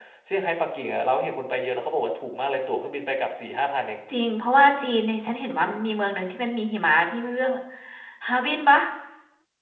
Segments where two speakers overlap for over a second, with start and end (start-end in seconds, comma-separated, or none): none